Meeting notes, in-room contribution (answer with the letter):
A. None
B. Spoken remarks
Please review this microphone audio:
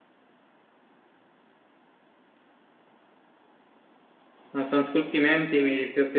B